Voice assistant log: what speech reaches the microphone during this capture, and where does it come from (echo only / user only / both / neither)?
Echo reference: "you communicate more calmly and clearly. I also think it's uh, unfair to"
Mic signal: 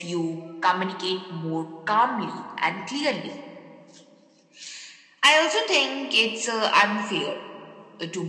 echo only